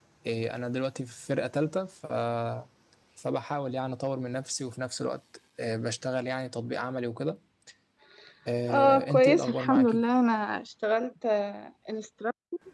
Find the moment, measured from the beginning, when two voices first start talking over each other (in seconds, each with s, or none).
8.7 s